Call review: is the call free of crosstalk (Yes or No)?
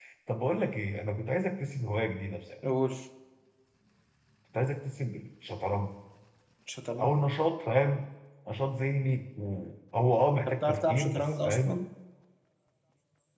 No